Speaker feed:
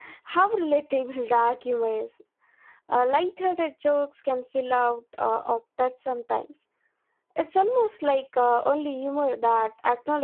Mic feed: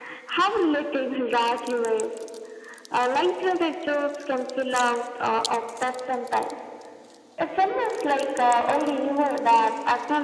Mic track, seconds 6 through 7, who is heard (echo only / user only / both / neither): echo only